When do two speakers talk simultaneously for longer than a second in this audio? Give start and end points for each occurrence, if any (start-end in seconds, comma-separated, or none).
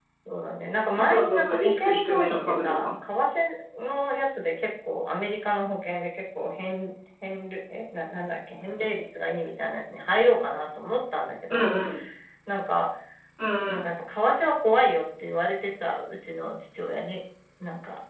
1.0-3.0